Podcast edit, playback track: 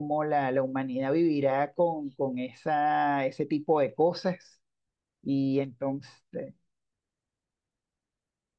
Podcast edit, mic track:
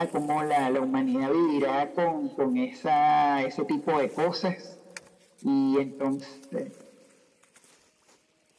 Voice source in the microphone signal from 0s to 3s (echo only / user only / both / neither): echo only